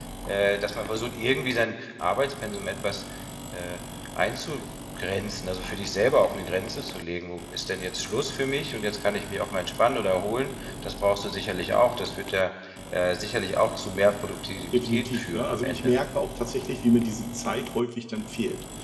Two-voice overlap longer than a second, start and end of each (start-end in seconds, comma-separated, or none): 14.7-16.0